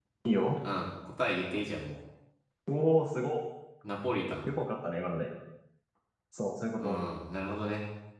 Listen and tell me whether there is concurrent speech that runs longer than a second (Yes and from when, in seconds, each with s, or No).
No